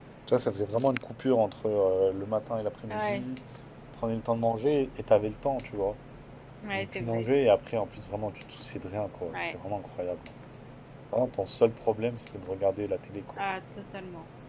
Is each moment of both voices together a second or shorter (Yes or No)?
Yes